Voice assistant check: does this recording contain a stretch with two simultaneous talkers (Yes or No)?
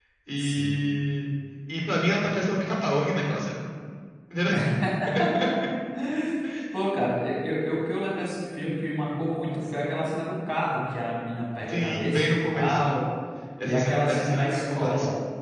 Yes